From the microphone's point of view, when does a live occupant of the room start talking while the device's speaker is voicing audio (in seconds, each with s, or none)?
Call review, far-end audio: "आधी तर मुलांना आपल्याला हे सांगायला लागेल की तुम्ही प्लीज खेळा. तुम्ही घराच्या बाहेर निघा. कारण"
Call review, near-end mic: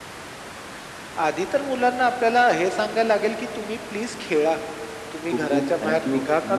5.2 s